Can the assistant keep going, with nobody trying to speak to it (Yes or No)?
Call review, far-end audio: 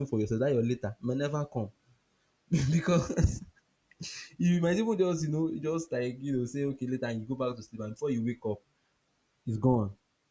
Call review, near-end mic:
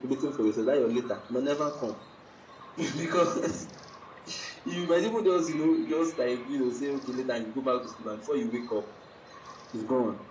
Yes